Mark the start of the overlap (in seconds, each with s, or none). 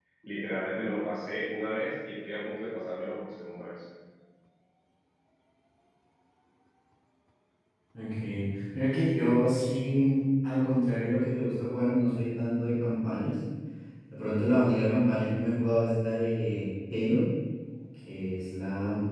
none